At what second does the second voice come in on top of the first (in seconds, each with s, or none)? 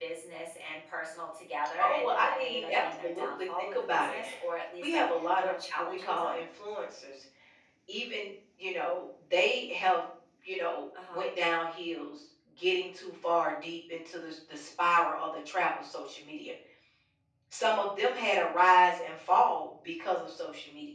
1.8 s